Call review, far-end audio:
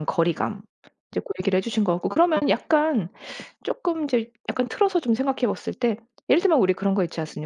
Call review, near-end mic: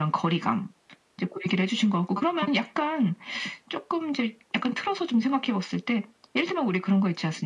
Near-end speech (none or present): none